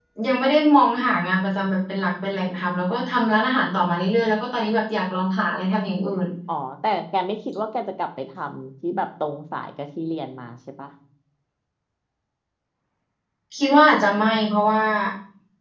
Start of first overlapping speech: none

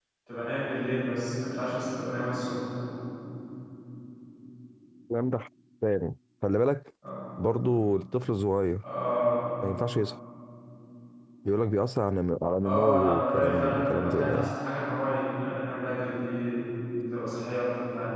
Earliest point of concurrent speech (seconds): 12.6 s

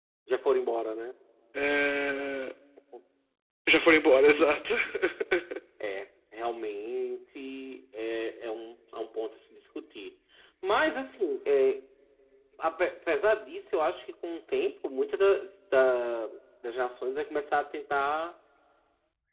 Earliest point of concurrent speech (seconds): none

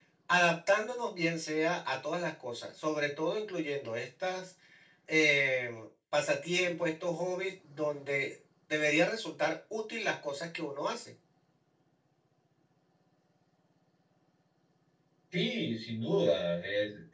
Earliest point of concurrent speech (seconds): none

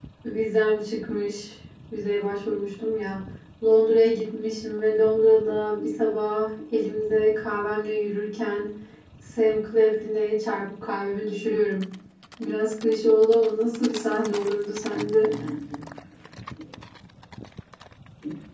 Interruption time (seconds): none

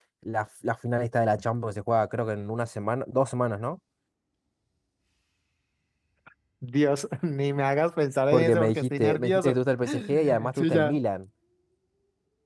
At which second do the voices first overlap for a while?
8.3 s

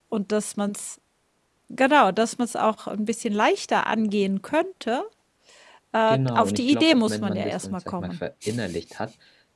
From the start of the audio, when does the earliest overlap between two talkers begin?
6.1 s

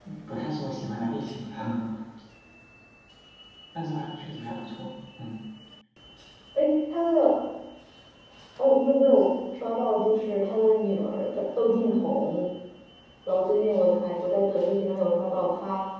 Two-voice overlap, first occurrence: none

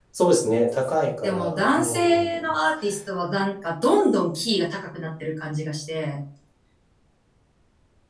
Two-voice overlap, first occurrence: 1.2 s

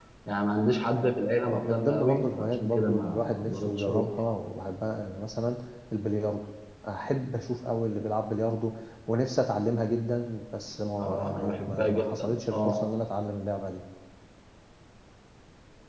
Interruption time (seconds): 1.5 s

